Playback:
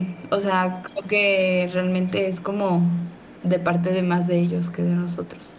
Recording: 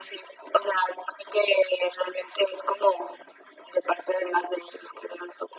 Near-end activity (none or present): none